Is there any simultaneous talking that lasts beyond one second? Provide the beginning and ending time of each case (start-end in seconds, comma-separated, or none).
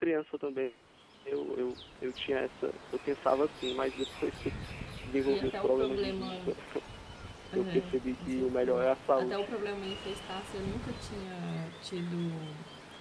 5.3-6.5, 7.5-9.5